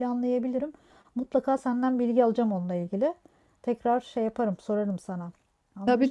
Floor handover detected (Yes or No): Yes